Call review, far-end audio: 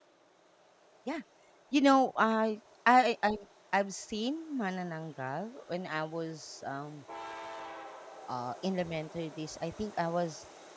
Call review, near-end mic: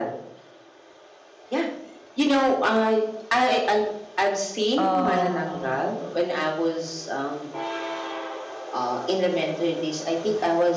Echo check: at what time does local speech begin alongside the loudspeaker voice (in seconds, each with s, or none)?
4.8 s